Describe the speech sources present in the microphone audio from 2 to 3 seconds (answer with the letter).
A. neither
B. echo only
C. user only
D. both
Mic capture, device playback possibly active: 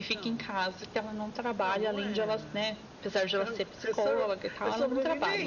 B